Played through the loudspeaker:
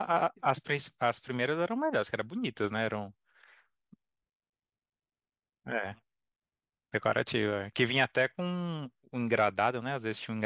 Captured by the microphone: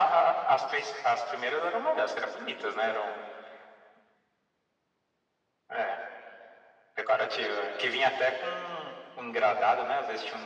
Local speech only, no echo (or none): none